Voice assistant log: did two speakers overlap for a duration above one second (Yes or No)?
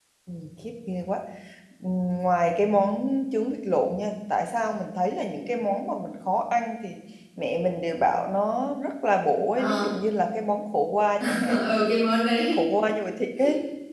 No